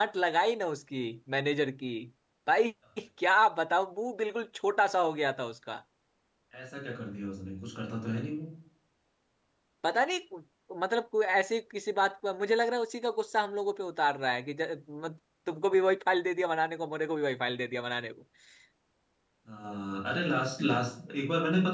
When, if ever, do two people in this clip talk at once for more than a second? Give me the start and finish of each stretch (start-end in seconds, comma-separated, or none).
none